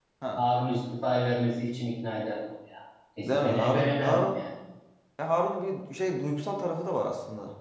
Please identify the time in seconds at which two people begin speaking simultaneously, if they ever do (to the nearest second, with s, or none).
3 s